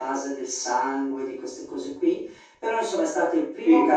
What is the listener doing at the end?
listening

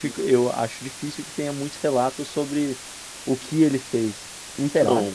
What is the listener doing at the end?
taking over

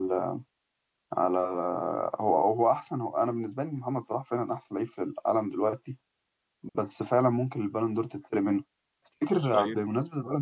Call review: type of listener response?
listening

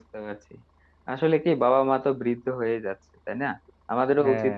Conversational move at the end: listening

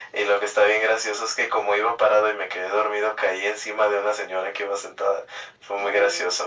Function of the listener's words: listening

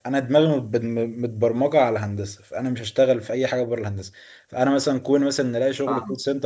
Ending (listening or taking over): listening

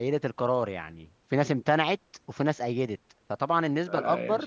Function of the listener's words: taking over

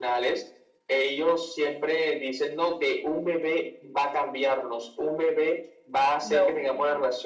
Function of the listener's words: listening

